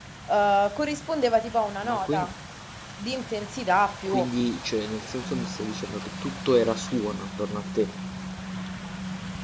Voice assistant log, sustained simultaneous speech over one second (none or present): none